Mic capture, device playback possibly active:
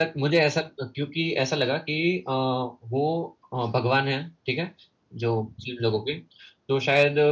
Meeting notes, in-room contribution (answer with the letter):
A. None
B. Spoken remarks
B